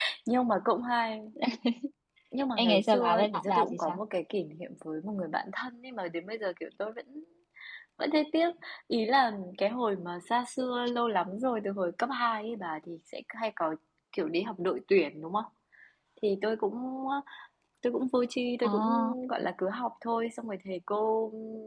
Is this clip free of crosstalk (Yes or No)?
No